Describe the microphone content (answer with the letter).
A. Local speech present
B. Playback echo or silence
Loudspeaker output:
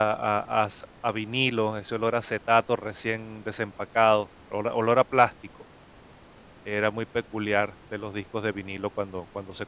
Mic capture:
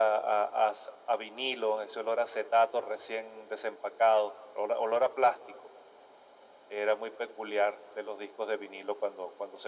B